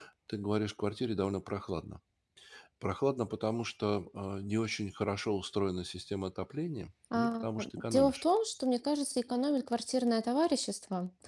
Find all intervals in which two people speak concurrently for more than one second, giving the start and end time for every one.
none

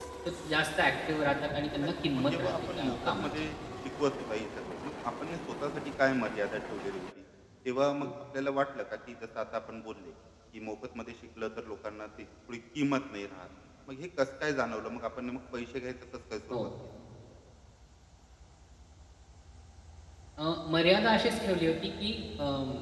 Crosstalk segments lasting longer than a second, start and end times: 1.8-3.5

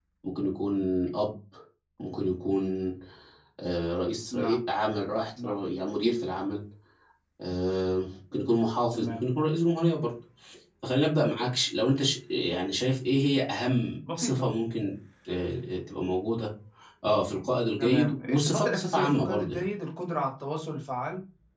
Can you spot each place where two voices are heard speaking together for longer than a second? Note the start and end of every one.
17.8-19.6

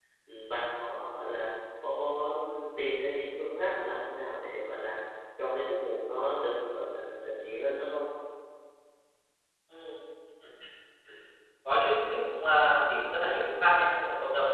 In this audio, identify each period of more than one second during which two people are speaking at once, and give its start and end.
none

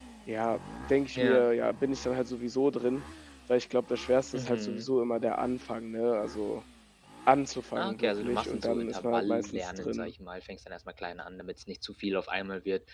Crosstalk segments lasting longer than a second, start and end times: 7.8-10.1

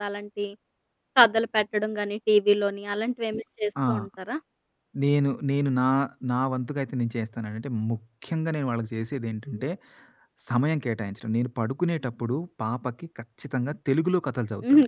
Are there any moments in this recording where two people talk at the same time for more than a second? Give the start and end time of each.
none

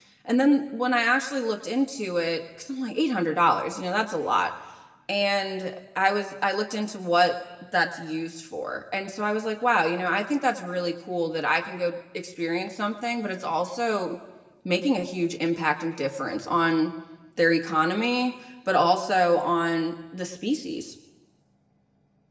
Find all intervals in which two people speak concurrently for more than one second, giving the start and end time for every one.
none

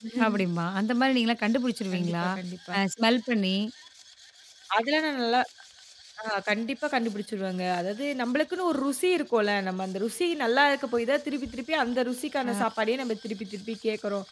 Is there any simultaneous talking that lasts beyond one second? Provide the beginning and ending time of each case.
none

